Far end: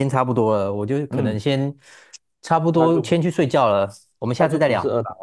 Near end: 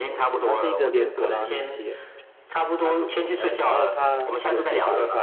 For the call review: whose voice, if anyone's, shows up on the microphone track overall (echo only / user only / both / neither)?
both